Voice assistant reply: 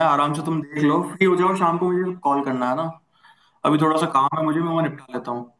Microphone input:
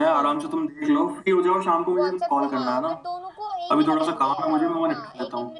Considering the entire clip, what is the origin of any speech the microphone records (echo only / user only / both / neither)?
both